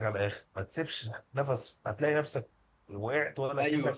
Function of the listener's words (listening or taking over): taking over